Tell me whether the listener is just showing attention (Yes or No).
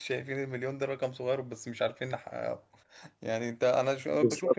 No